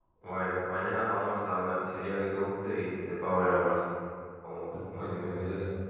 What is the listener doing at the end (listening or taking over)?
taking over